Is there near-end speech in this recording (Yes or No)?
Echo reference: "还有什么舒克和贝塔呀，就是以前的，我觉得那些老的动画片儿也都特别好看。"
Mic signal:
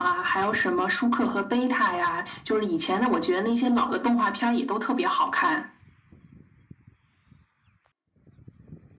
No